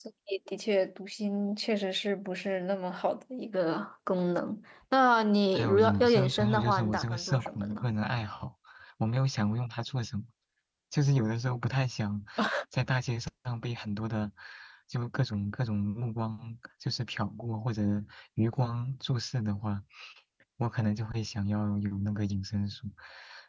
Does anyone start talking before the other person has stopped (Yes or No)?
Yes